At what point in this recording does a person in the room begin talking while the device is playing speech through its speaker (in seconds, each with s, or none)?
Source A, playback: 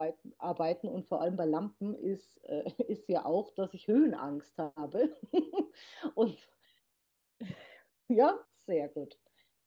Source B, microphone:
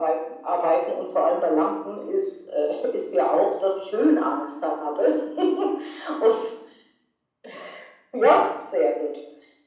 none